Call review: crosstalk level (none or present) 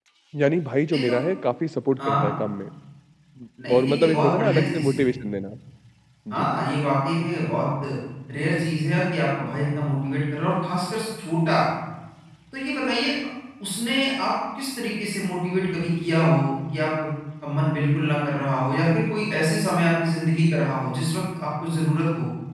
present